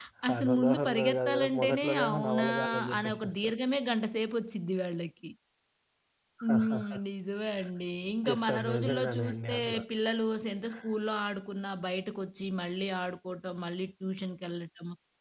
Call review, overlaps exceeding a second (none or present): present